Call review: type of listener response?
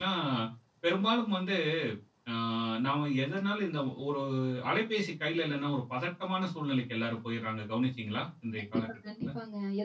taking over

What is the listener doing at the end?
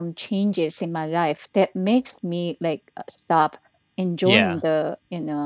listening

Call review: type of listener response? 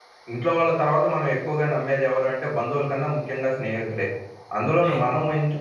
listening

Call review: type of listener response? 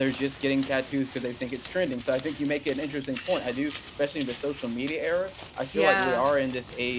listening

